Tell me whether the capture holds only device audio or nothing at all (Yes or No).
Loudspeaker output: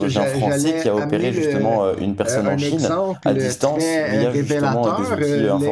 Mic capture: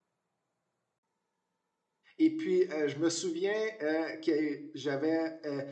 No